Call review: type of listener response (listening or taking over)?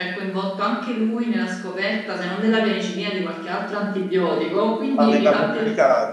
taking over